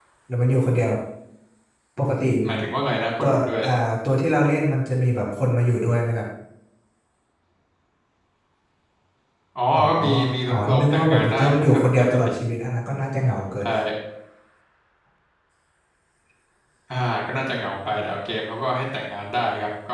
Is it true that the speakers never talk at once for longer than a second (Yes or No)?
No